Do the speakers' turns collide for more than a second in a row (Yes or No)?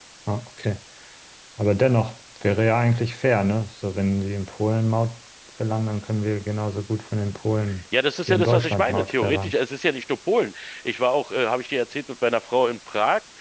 Yes